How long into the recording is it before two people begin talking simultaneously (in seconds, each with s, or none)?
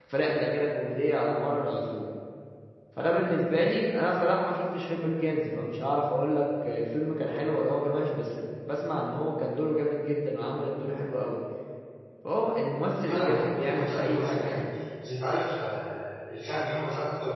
13.1 s